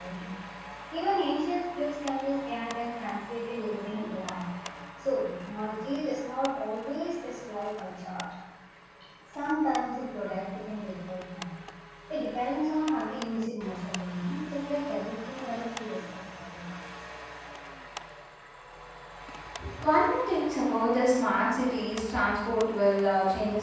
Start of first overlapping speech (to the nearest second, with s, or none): none